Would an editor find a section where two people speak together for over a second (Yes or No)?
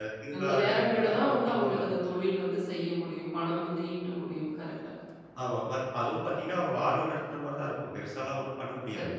Yes